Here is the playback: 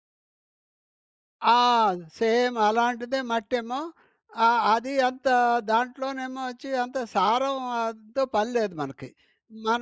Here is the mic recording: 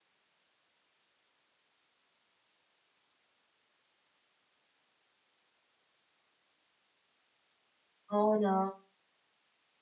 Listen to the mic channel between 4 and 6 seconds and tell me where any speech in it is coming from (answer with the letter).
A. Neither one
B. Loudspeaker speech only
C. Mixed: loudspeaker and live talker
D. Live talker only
A